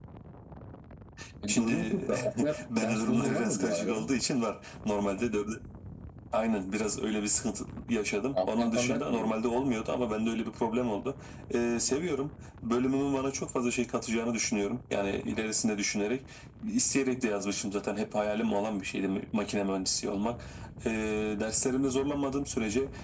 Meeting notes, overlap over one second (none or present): present